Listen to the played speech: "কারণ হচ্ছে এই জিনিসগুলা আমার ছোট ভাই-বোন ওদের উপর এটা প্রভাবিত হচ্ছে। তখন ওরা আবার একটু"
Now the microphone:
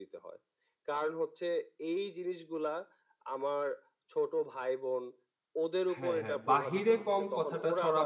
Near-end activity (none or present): present